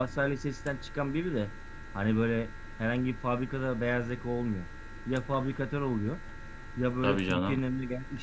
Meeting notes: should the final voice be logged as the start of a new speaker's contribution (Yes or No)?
No